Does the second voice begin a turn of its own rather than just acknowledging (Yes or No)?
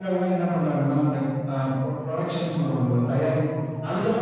No